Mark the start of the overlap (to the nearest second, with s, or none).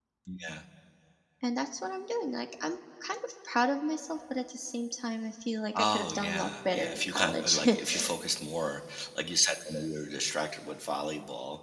6 s